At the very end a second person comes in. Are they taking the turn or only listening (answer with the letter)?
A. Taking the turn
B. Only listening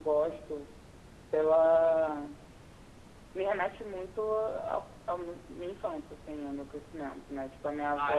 B